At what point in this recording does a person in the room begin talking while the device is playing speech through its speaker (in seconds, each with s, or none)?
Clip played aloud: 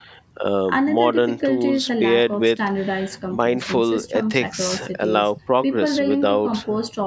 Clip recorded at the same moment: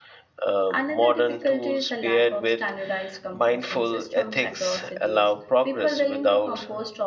none